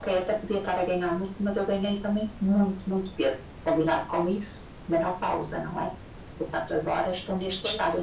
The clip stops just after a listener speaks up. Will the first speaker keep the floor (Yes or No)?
Yes